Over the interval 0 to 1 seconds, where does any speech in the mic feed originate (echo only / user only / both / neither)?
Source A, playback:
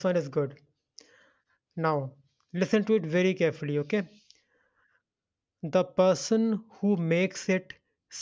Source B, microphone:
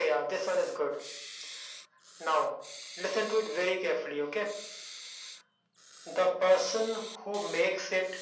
echo only